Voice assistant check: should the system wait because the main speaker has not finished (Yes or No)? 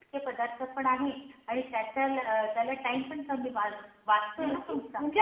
No